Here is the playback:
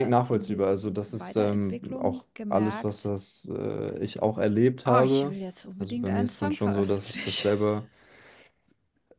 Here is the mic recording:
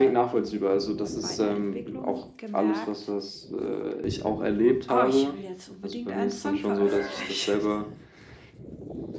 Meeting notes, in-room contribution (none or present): none